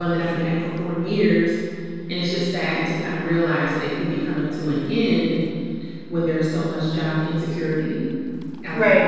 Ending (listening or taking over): taking over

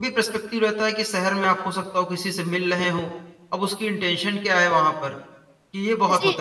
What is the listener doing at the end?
taking over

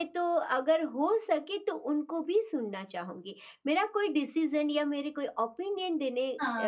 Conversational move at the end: listening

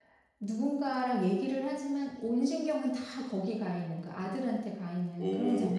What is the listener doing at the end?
taking over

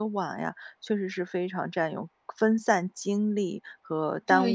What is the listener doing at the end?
taking over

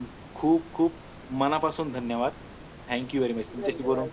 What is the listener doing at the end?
listening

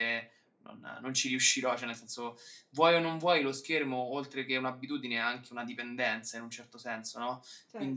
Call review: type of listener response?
taking over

